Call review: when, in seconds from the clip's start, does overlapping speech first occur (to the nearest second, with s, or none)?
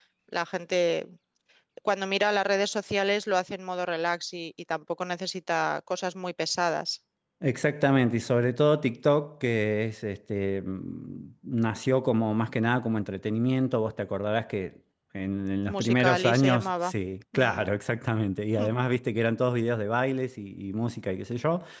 16 s